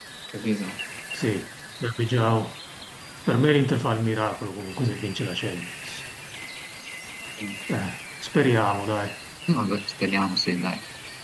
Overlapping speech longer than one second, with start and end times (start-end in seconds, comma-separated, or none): none